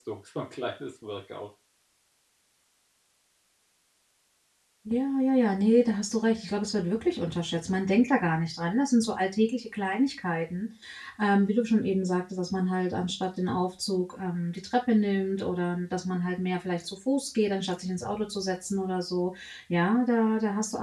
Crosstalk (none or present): none